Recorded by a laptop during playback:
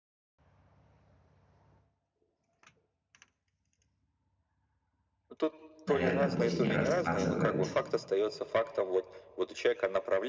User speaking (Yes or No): Yes